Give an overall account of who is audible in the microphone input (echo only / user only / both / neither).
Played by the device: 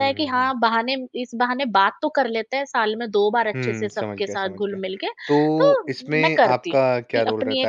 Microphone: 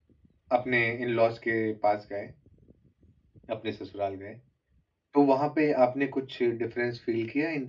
user only